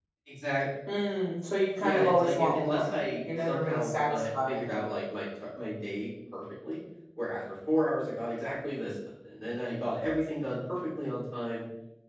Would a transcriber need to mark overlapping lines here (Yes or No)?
Yes